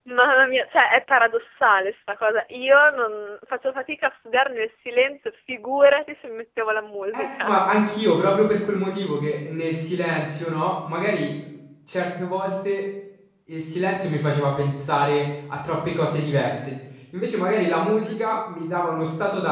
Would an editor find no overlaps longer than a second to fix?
Yes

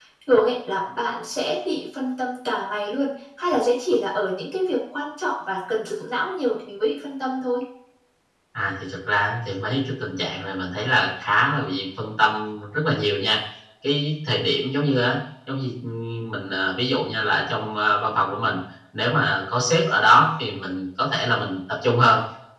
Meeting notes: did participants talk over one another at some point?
No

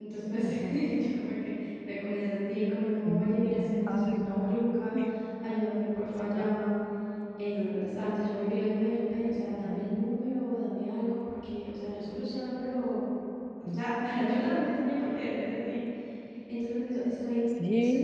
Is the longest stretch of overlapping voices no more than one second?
No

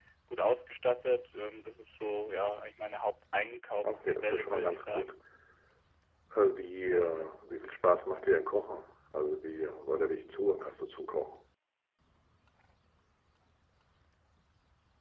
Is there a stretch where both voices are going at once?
Yes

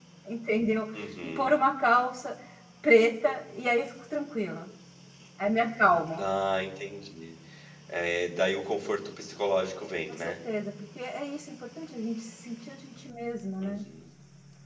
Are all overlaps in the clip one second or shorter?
Yes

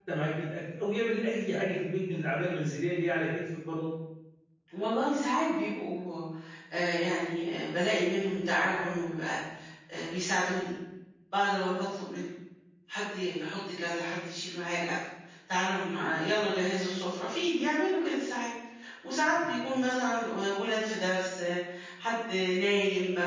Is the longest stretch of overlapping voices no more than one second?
Yes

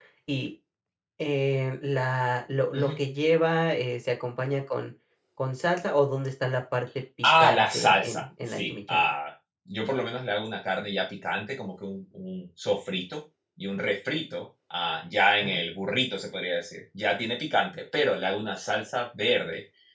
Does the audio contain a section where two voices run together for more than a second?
Yes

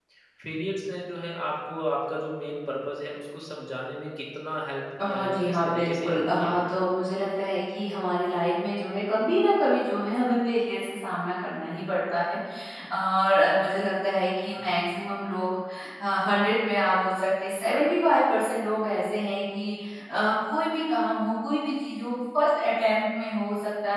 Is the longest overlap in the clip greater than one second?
Yes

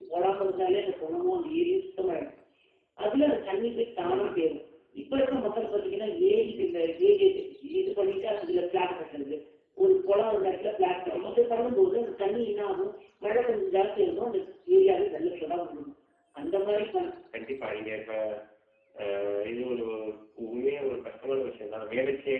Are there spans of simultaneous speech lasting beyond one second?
No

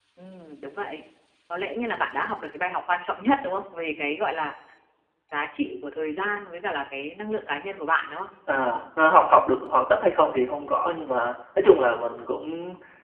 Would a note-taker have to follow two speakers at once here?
No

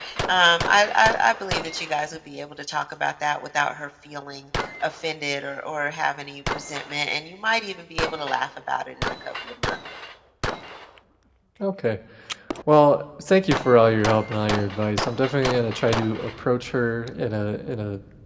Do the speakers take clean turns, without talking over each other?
Yes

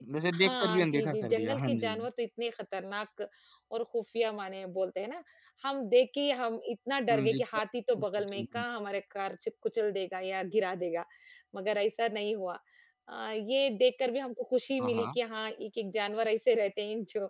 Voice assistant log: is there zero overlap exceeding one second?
No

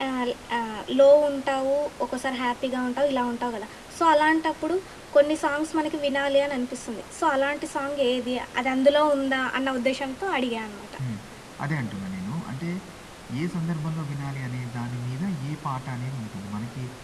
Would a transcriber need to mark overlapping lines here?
No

